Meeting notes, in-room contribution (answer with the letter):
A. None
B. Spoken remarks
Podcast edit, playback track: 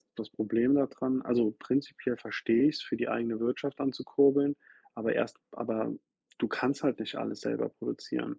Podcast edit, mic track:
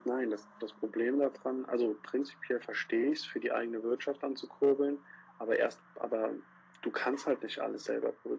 A